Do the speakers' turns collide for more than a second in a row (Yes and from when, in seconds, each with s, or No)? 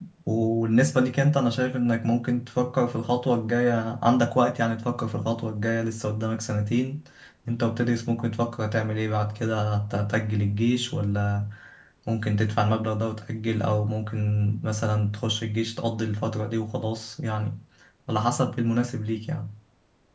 No